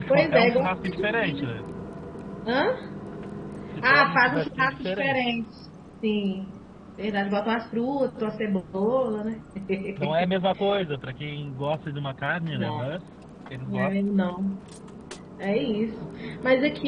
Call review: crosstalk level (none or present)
present